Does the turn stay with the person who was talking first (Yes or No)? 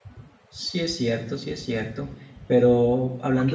No